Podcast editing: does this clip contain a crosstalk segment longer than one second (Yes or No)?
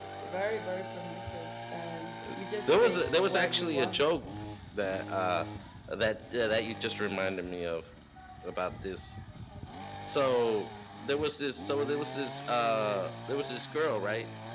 Yes